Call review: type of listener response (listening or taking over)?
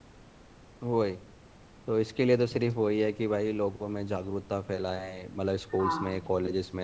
listening